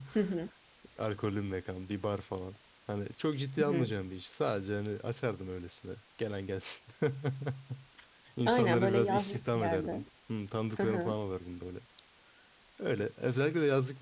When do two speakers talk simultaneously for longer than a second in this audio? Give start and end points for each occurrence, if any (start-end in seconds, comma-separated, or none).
8.5-10.0